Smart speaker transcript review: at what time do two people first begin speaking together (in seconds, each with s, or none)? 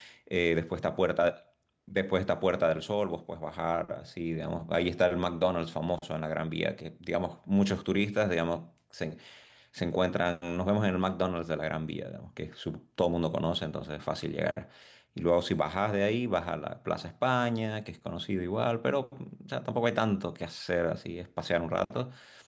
none